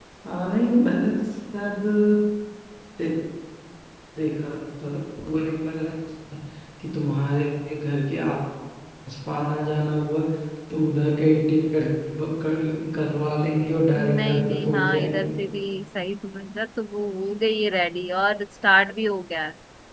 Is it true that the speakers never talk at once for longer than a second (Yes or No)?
No